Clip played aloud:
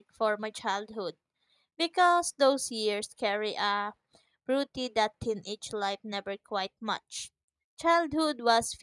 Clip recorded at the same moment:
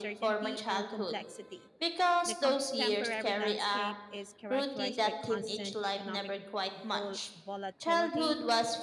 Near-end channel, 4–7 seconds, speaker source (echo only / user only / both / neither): both